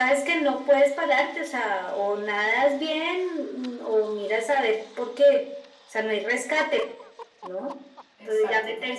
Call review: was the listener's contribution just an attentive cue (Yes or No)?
Yes